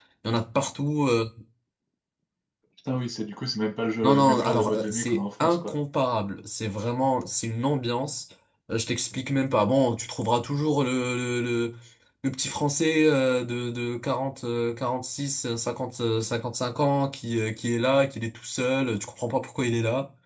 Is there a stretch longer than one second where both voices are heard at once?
Yes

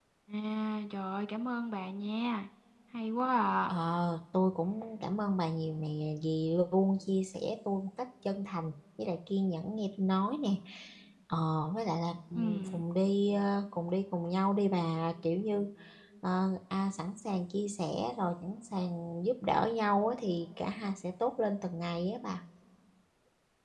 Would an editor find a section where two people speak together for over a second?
No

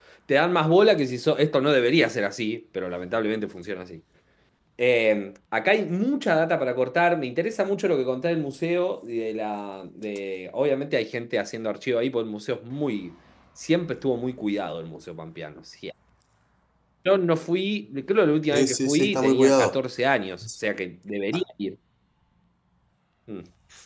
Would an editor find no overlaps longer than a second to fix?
No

